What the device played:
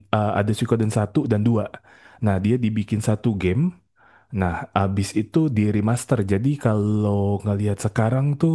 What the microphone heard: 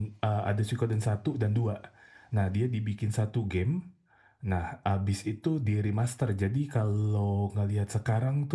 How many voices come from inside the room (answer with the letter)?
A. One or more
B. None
B